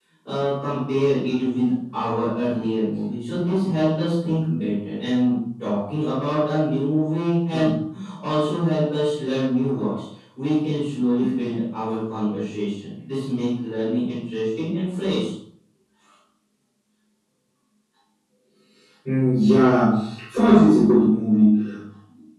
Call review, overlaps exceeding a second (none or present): none